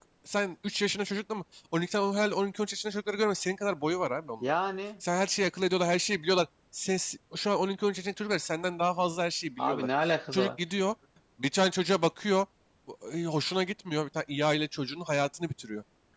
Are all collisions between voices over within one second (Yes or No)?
Yes